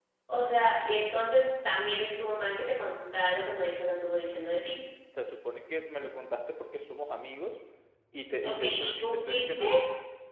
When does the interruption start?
8.4 s

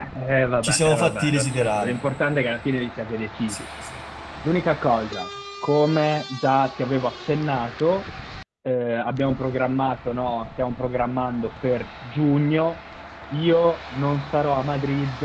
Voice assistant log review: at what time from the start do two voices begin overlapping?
0.6 s

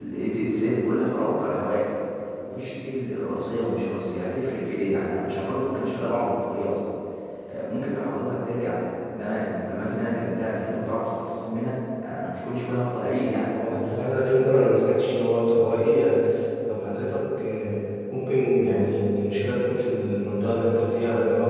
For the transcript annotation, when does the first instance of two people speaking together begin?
none

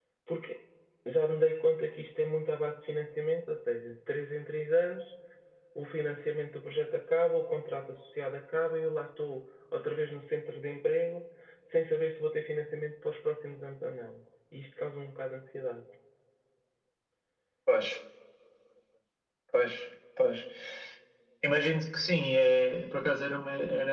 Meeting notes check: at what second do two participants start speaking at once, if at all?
none

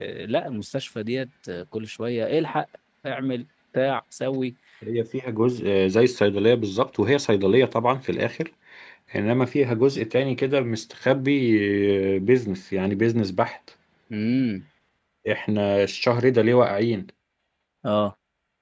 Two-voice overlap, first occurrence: none

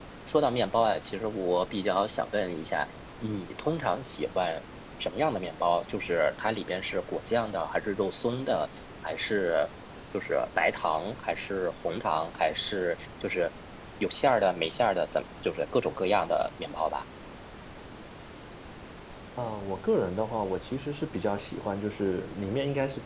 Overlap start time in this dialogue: none

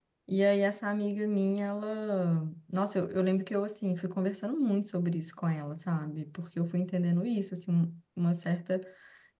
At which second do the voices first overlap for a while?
none

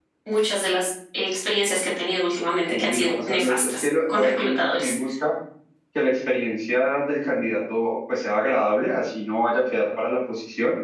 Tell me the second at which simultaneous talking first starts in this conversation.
2.7 s

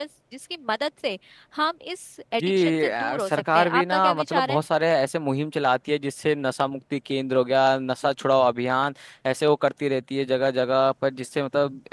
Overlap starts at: 2.4 s

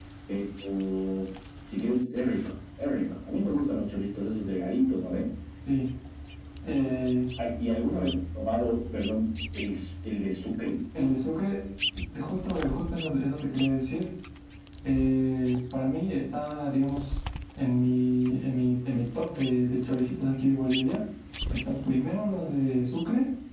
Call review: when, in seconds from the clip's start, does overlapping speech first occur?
none

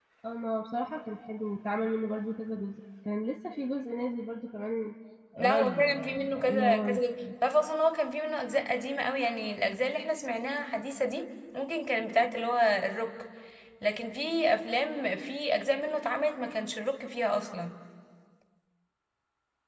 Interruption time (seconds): 5.4 s

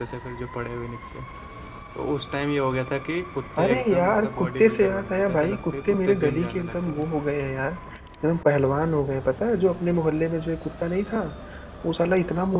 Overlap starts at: 3.6 s

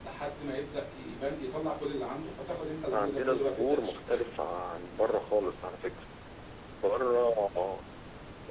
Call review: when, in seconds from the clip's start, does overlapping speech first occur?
2.9 s

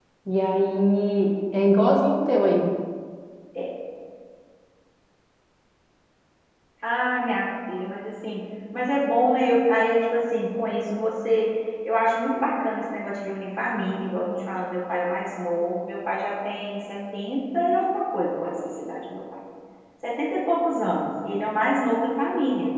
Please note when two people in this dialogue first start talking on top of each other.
none

